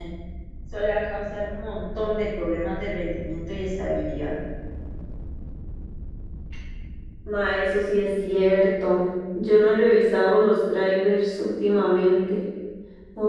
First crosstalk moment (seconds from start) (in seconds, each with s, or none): none